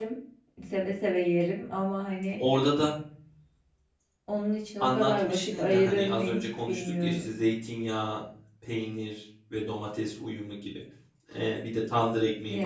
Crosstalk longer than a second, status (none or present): present